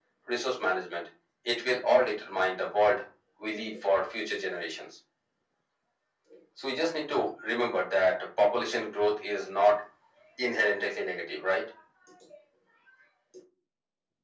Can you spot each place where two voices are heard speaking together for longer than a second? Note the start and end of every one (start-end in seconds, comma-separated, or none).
none